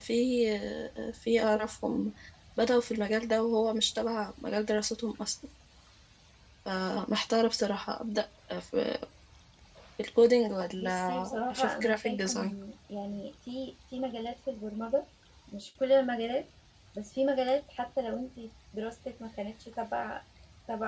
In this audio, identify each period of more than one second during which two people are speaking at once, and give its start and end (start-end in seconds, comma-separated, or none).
10.8-12.5